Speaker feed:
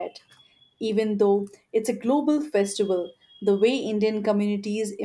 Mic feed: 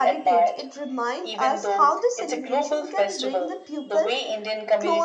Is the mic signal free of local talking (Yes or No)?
No